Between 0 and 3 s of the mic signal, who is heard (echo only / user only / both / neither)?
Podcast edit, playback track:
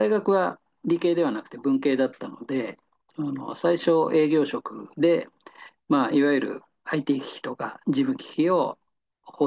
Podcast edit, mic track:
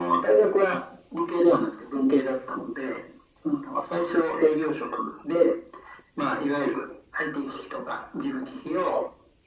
echo only